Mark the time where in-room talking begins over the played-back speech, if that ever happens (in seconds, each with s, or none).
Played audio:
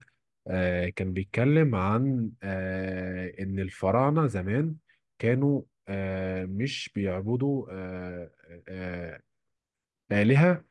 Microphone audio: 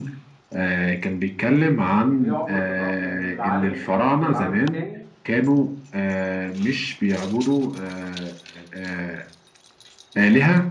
2.1 s